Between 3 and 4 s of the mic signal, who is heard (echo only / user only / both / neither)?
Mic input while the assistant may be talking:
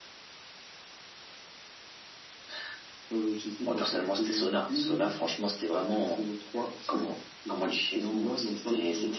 echo only